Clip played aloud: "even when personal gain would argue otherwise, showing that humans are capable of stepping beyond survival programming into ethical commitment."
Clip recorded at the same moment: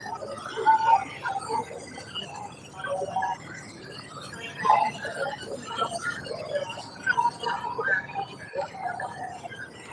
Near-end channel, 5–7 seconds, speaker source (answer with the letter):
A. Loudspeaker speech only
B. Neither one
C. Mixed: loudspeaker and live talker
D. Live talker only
A